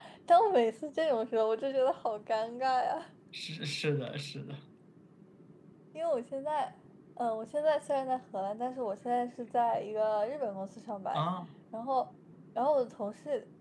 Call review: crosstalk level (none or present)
none